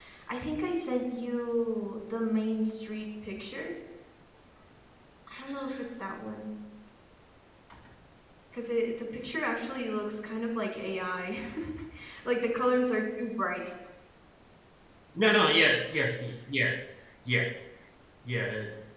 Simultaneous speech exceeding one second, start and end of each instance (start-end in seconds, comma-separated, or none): none